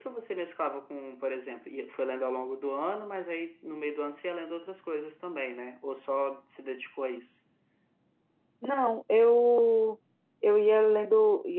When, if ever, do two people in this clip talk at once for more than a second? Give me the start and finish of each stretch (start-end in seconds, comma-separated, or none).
none